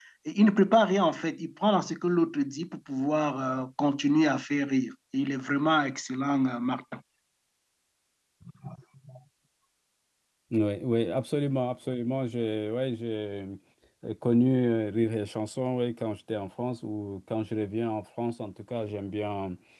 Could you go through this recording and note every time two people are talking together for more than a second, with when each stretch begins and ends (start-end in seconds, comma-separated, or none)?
none